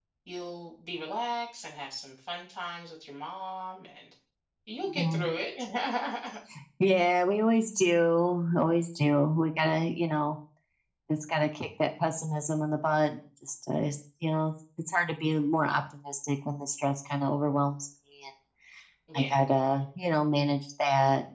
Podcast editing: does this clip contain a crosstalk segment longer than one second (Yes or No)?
No